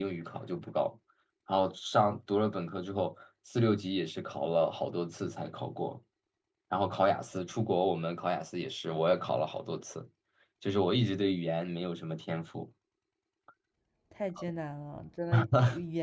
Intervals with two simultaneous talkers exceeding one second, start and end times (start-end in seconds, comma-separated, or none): none